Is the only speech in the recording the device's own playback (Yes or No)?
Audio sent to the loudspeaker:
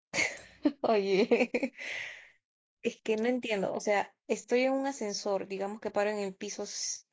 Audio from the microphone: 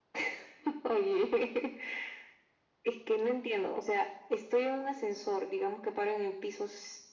Yes